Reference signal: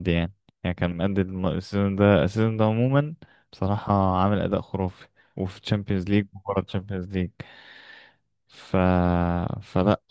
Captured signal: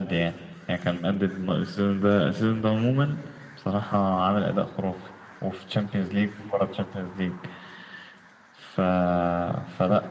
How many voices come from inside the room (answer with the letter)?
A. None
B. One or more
A